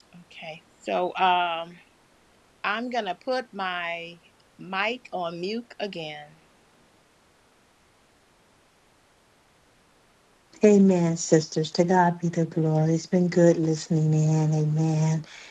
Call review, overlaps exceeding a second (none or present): none